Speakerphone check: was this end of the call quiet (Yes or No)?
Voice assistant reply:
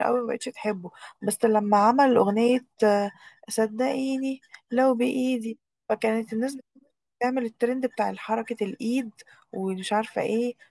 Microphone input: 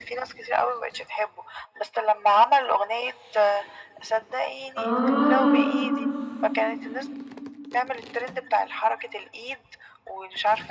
No